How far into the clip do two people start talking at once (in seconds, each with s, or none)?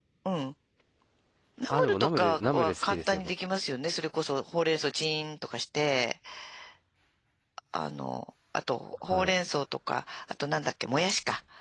1.7 s